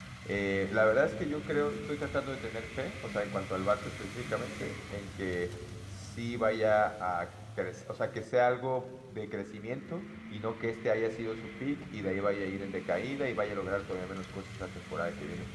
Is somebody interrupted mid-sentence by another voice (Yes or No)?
No